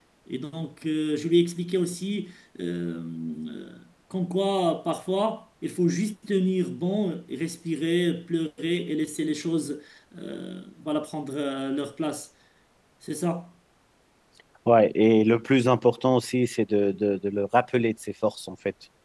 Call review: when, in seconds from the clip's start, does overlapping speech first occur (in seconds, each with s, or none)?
none